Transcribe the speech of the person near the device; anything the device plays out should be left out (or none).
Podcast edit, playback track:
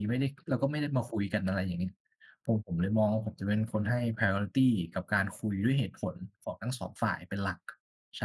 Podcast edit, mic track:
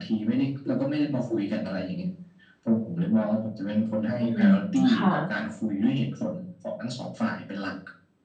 อืม ค่ะ